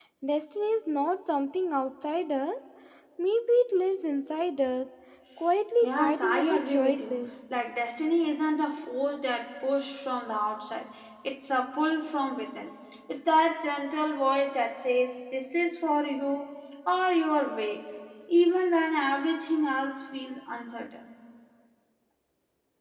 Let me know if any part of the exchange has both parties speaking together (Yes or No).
Yes